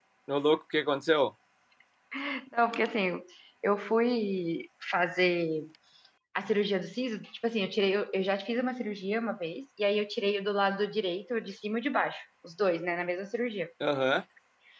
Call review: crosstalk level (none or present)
none